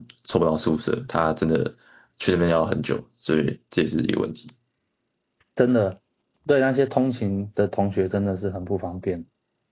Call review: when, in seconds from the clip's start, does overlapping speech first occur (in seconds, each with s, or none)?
none